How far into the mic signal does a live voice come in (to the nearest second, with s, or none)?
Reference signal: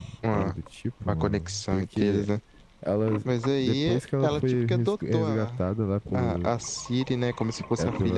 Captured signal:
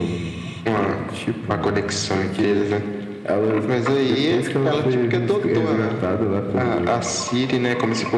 none